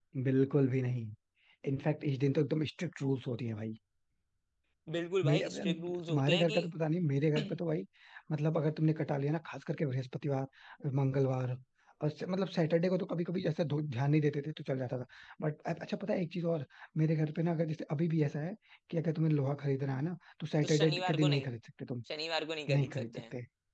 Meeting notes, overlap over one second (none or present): present